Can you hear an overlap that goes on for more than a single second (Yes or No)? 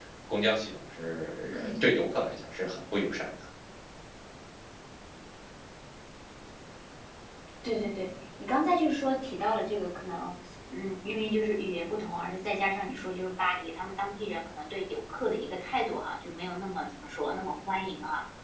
No